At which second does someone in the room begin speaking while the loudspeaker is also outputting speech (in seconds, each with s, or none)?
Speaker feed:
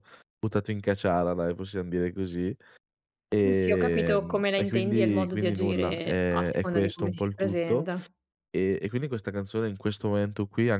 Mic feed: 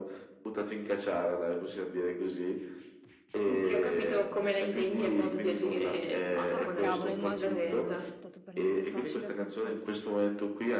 6.5 s